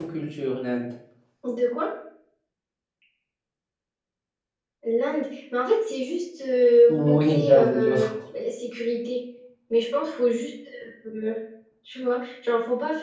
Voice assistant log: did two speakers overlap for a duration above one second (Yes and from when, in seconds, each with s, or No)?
Yes, from 6.9 s